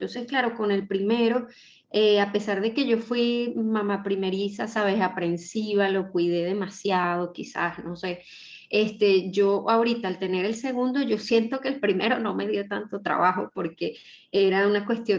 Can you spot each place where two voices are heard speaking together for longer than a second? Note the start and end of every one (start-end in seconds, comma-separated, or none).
none